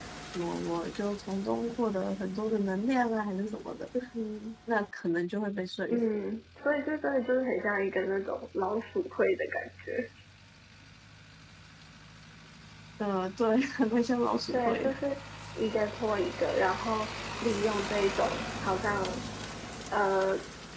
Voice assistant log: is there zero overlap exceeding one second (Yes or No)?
Yes